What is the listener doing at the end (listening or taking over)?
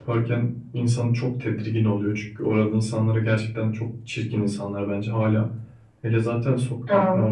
listening